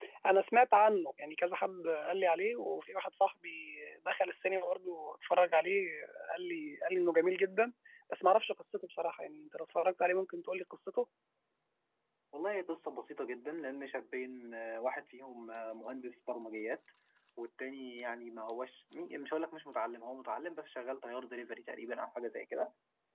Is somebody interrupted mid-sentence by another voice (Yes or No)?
No